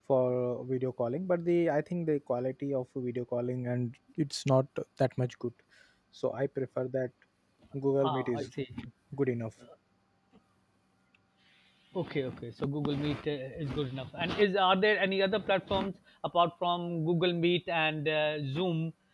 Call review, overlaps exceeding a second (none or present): none